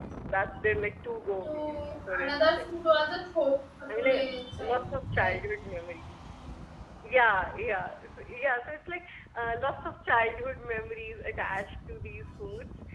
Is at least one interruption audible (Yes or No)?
Yes